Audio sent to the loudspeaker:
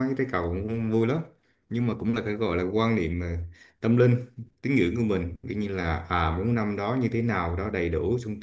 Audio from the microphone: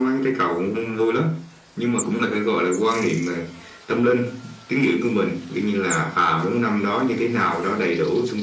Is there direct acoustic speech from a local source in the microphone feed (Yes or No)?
No